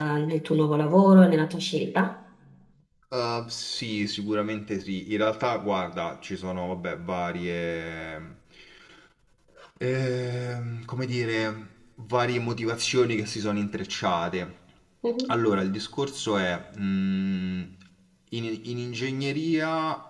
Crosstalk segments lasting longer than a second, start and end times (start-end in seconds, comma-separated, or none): none